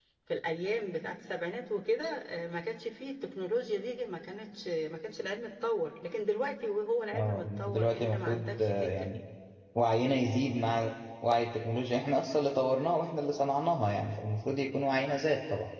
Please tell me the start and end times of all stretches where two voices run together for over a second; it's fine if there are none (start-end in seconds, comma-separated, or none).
7.1-9.1